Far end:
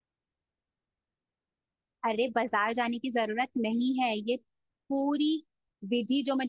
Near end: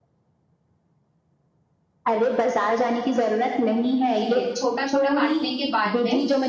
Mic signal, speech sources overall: both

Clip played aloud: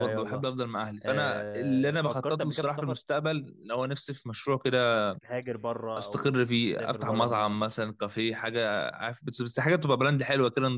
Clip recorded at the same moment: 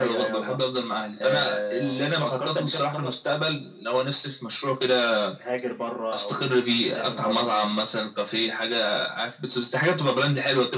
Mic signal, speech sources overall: echo only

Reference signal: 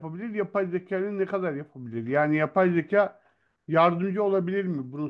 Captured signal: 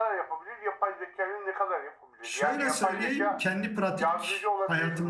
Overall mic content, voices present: both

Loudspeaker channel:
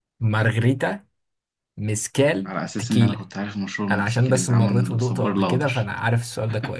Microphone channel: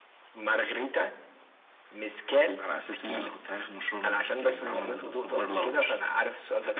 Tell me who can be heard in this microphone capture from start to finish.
echo only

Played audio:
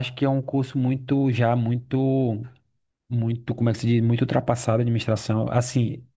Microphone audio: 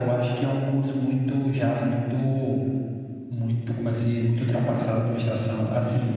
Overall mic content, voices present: echo only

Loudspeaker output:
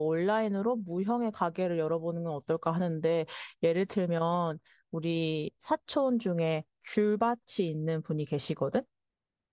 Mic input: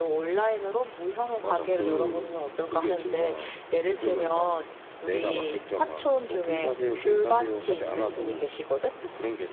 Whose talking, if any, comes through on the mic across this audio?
both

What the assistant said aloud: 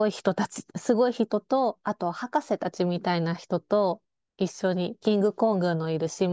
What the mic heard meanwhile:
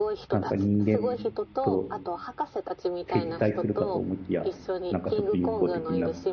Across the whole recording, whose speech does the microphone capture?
both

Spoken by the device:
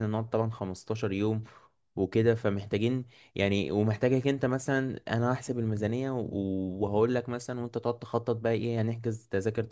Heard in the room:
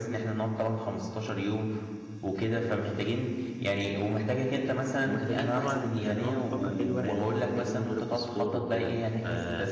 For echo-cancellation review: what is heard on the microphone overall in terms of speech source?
both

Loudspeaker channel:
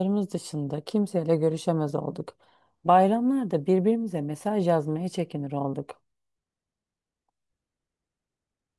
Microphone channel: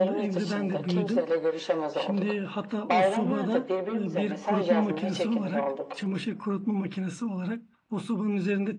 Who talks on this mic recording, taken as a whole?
both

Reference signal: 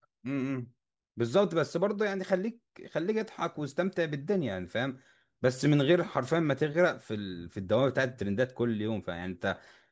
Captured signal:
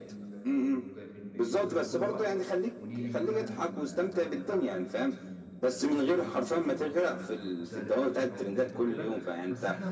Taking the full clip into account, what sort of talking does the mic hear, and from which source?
both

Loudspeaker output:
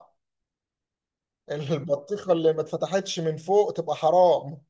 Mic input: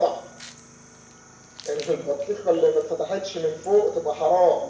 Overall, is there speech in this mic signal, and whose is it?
echo only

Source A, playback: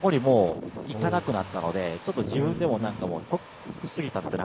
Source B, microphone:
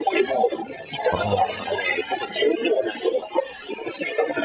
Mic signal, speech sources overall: both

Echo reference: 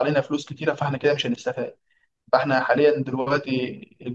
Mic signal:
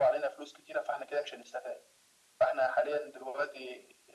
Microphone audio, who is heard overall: echo only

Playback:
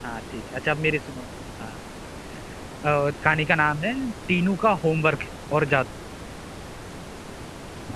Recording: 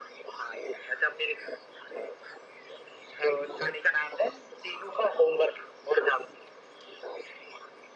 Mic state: echo only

